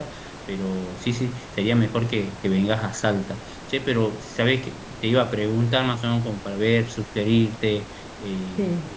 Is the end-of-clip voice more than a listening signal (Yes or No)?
No